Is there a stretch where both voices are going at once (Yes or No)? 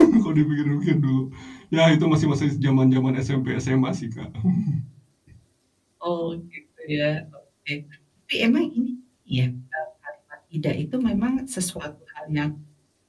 No